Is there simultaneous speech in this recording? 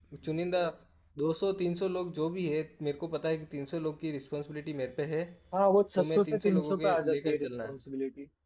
Yes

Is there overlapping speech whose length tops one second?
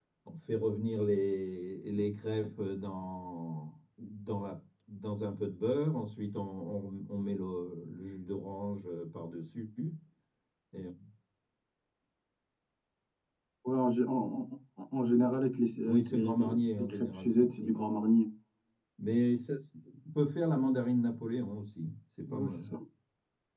Yes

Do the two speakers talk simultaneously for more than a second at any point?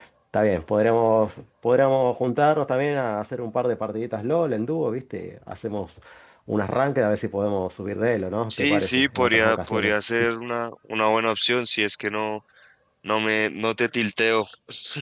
Yes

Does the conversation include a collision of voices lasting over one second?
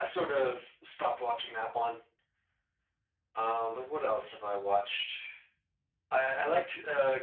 No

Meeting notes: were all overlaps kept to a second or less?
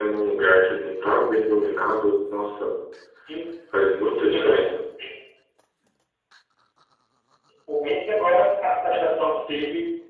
Yes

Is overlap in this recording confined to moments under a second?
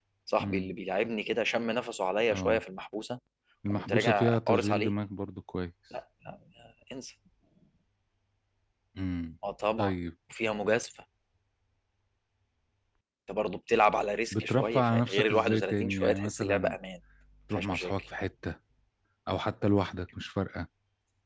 No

